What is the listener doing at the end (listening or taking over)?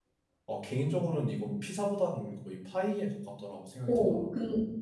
taking over